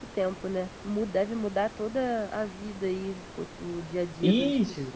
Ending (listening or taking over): taking over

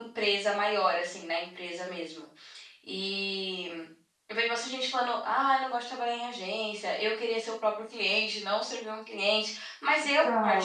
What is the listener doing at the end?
listening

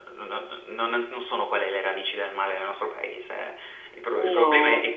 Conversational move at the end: listening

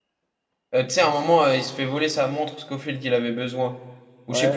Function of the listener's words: taking over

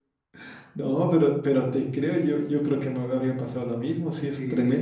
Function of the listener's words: listening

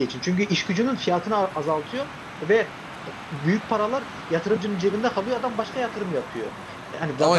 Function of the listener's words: listening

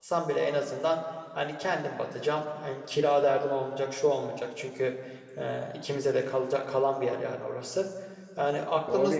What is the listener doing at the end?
taking over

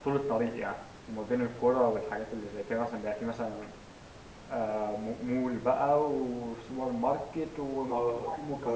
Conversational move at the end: taking over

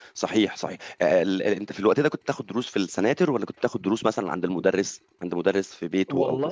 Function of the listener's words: taking over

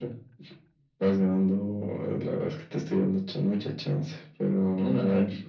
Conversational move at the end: taking over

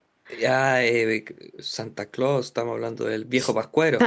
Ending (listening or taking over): taking over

